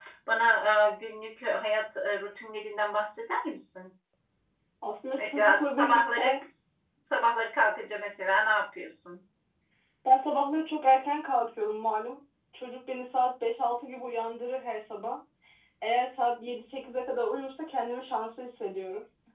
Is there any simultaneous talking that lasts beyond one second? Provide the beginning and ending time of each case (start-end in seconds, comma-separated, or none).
5.1-6.3